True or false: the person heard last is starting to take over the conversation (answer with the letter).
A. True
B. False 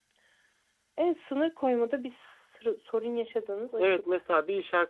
A